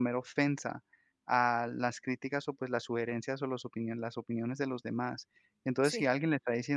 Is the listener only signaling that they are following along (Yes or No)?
Yes